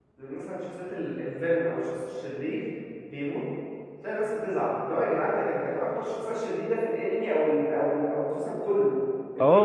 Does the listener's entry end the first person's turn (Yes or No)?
Yes